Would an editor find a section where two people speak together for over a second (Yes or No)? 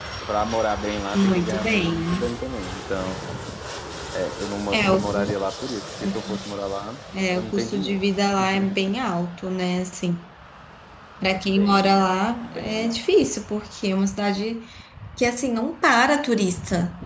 Yes